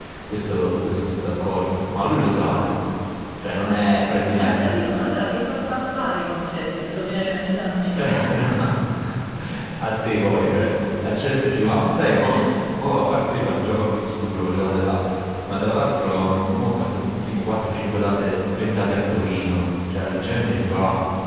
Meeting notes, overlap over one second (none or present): none